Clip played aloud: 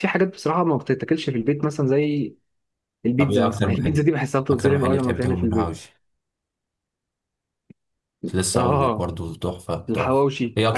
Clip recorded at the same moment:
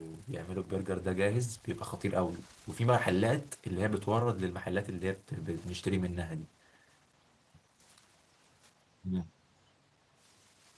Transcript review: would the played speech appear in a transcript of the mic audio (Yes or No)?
No